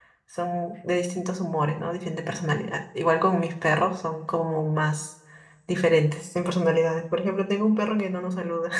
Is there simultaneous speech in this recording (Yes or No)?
No